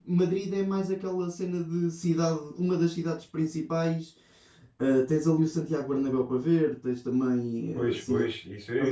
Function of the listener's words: taking over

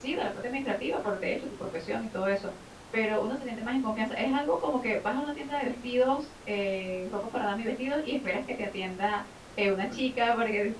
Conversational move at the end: listening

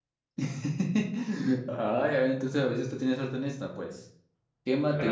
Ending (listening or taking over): listening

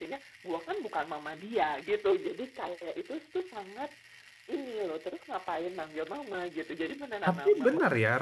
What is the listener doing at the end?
taking over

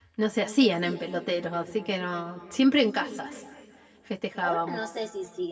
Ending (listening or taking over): taking over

